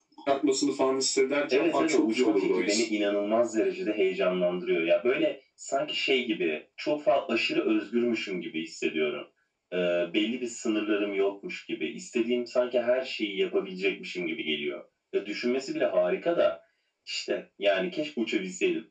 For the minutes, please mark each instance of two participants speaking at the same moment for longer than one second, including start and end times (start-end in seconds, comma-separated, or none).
1.5-2.8